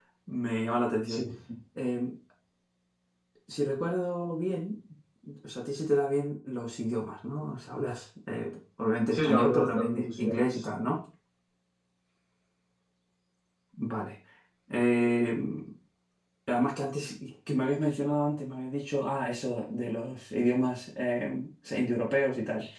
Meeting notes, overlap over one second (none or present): present